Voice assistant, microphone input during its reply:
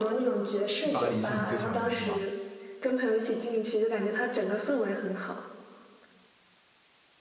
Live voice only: 巴黎是你最喜欢的城市吗？

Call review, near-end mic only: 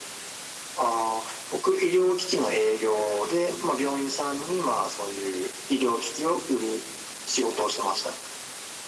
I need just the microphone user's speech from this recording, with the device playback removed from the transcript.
none

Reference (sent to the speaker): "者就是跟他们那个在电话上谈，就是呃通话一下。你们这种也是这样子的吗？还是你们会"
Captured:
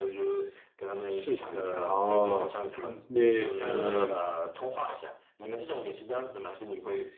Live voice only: 市场营销哦，所以你是嗯。

